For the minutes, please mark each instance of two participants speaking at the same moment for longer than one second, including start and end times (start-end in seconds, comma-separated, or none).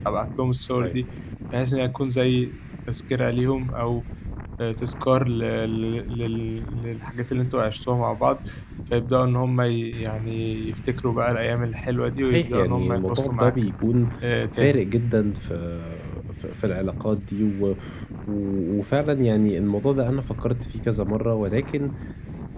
12.2-13.5